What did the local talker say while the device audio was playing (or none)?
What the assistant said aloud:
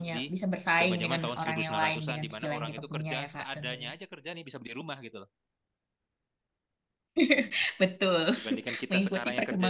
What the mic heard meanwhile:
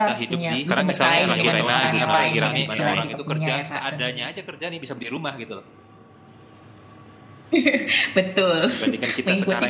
Sekarang misalnya lagi rame apa lagi rame AI.